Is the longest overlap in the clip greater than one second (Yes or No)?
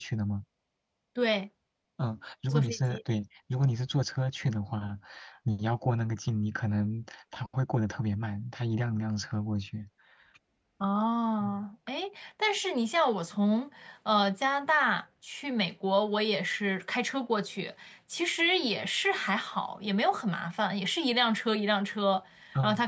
No